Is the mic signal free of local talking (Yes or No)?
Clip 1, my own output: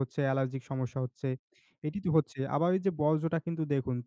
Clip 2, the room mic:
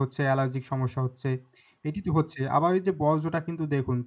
Yes